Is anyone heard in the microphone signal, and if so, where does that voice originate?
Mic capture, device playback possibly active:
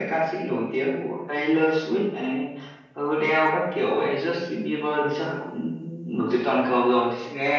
echo only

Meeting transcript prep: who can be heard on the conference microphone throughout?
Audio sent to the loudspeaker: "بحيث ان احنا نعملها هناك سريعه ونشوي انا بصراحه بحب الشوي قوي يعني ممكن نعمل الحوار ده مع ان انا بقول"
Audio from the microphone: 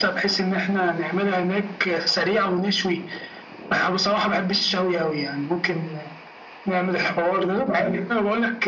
echo only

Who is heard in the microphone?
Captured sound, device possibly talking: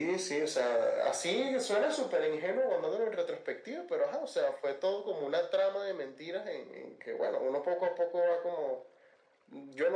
echo only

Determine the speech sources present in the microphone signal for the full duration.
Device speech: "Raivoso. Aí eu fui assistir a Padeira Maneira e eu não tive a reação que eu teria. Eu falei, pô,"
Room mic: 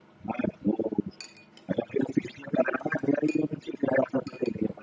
echo only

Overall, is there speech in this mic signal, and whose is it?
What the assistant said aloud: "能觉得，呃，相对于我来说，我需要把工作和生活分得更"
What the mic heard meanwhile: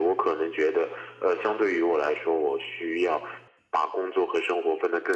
echo only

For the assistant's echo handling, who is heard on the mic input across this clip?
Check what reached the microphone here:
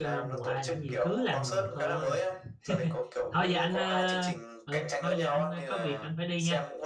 both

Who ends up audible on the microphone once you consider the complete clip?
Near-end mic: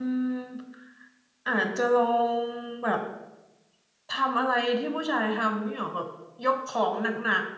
user only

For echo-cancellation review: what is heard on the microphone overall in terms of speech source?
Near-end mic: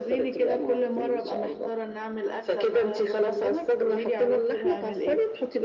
echo only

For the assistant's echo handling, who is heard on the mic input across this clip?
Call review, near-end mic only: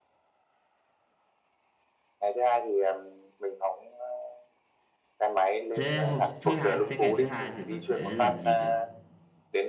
both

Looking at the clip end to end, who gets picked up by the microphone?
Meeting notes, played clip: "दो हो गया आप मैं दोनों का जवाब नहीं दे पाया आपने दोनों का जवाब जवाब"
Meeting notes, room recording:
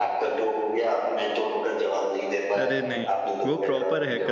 both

